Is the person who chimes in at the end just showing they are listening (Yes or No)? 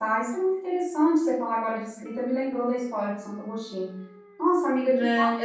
No